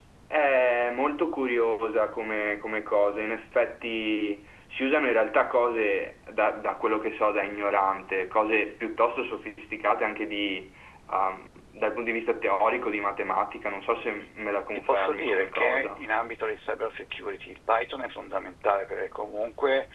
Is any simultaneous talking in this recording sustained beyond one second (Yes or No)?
Yes